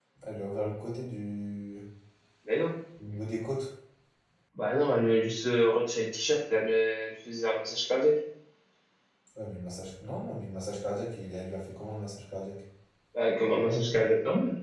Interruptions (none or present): none